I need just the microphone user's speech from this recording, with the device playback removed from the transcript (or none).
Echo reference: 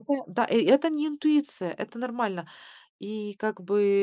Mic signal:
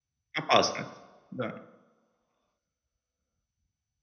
Опасность, да.